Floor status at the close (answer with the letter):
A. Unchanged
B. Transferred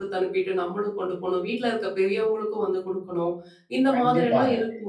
B